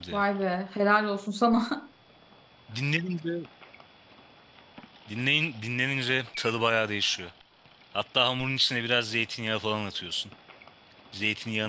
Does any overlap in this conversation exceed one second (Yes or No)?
No